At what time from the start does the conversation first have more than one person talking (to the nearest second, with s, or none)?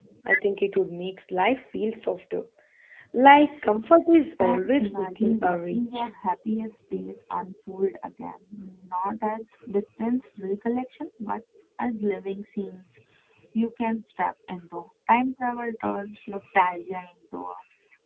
4 s